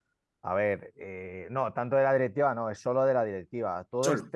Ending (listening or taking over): listening